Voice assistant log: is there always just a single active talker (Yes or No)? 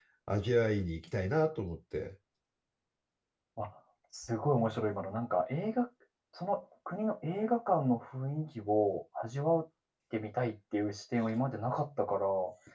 Yes